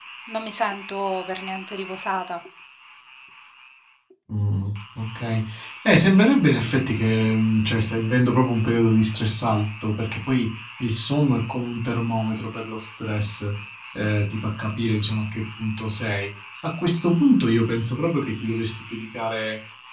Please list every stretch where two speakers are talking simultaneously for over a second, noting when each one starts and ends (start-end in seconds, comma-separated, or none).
none